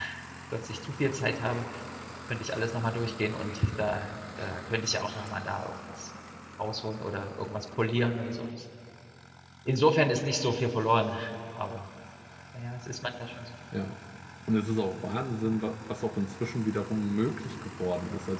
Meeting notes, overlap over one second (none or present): none